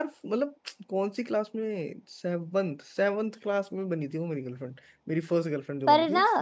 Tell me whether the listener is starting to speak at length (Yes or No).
Yes